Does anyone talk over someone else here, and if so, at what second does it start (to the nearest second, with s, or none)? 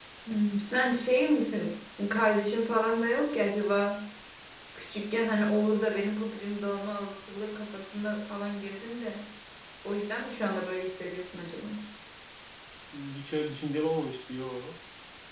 none